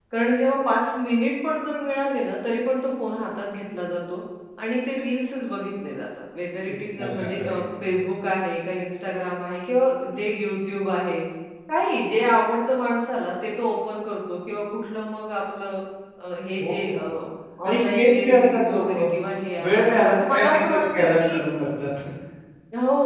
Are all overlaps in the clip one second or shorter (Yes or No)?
No